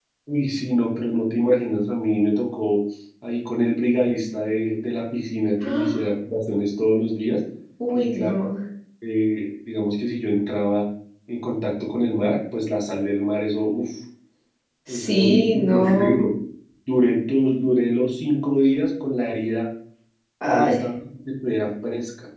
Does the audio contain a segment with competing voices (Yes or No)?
Yes